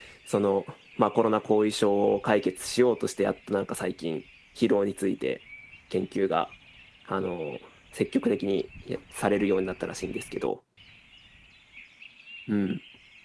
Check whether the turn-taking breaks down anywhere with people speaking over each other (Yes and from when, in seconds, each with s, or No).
No